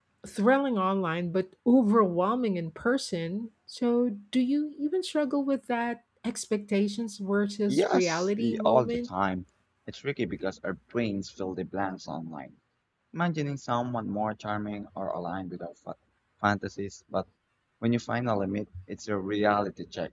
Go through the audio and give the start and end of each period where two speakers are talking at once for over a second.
7.7-9.1

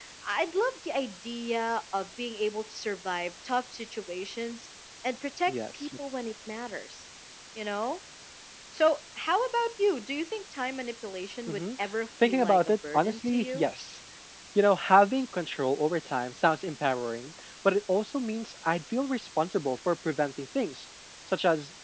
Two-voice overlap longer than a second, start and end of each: 12.2-13.7

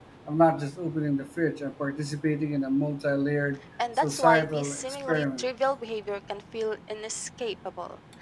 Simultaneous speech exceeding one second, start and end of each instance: 4.0-5.4

